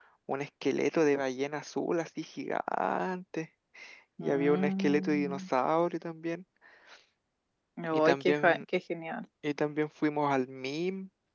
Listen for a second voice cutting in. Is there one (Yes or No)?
Yes